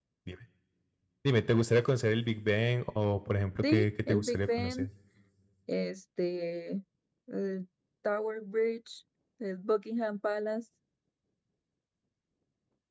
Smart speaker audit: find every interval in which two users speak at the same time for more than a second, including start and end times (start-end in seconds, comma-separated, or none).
3.6-4.9